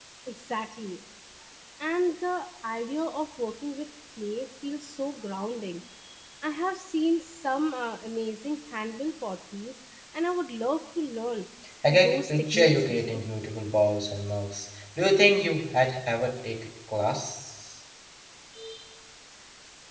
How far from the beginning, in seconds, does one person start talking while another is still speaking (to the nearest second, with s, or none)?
12 s